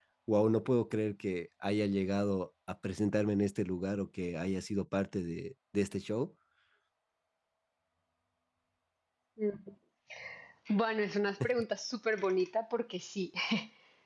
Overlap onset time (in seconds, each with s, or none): none